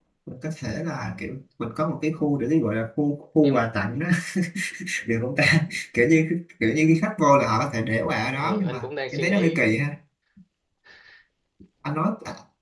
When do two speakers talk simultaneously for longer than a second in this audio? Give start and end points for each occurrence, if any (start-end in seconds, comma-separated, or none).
8.4-9.7